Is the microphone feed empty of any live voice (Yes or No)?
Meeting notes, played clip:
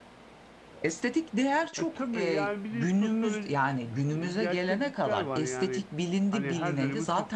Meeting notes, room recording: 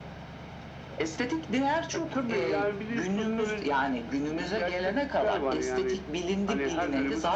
Yes